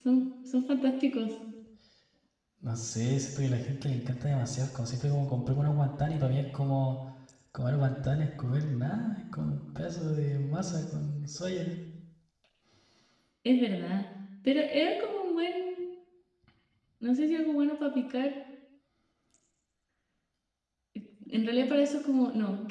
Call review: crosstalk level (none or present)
none